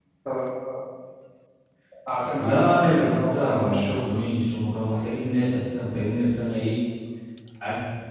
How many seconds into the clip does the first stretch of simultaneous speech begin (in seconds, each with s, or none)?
2.4 s